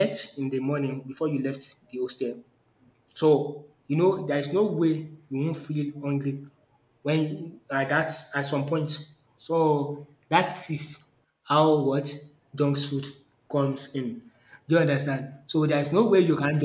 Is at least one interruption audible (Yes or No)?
No